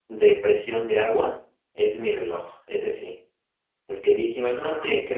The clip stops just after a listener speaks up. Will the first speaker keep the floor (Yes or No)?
Yes